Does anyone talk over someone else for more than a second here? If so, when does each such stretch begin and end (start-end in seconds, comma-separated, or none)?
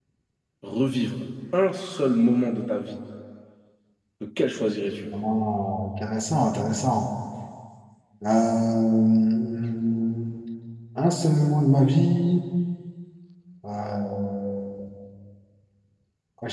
none